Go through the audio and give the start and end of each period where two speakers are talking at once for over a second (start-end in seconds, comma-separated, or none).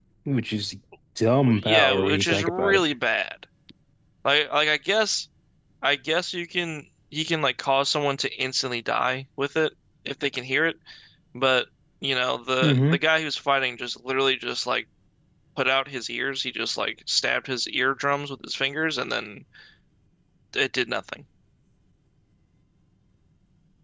1.4-2.8